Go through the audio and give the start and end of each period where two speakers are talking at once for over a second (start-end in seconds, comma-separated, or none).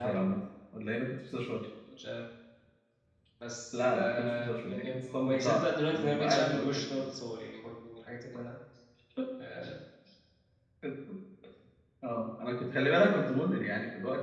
3.7-7.0